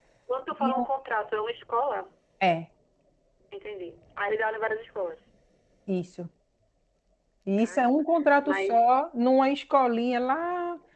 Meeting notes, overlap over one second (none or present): none